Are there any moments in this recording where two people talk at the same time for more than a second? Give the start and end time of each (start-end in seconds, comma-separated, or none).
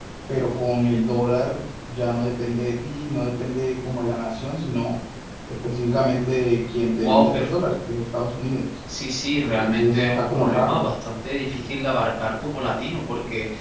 9.4-10.9